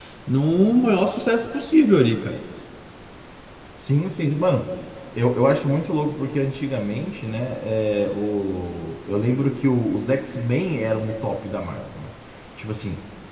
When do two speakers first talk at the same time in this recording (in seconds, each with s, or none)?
none